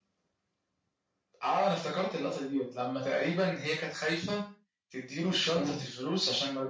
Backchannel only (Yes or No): Yes